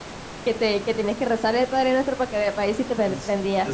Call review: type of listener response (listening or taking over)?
taking over